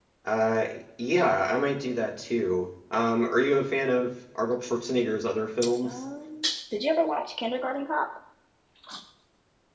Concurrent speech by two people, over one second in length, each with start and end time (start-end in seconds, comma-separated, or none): none